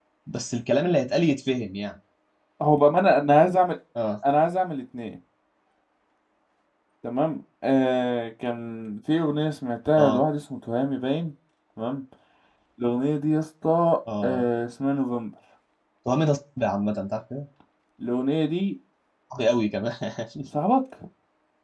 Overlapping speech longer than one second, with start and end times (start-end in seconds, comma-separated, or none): none